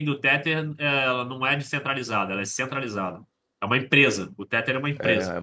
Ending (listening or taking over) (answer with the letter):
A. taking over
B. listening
A